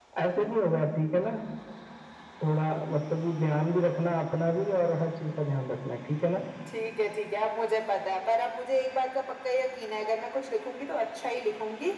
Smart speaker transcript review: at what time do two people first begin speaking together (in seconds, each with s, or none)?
none